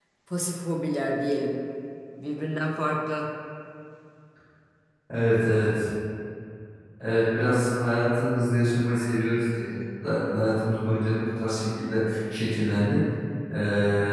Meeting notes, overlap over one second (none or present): none